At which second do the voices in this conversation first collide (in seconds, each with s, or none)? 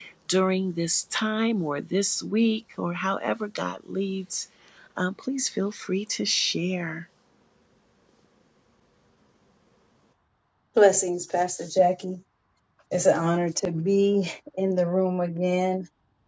none